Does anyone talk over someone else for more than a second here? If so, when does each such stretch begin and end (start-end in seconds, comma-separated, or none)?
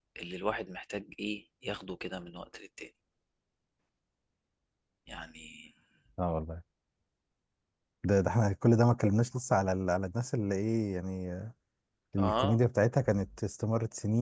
none